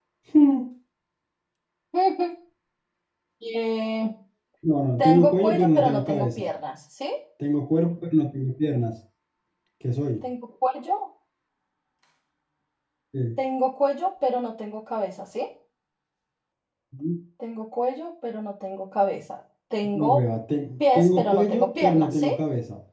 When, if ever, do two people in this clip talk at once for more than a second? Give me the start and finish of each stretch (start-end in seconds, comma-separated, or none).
5.0-6.5, 20.8-22.3